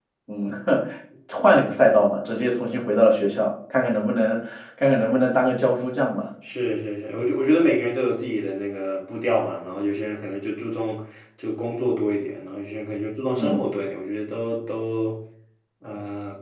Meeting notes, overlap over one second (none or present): none